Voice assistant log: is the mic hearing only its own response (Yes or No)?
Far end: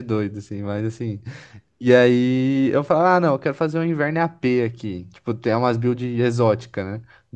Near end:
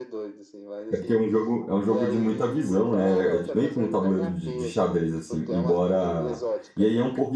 No